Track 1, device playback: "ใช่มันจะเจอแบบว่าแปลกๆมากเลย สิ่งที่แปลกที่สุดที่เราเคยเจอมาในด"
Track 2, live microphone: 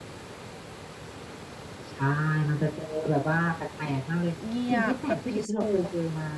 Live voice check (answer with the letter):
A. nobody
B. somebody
B